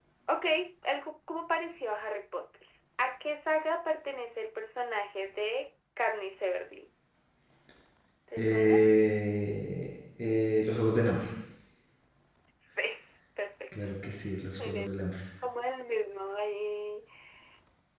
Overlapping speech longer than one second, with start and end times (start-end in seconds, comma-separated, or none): none